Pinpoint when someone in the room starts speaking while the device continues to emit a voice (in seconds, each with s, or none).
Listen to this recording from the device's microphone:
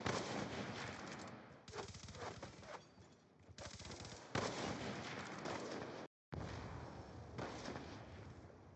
none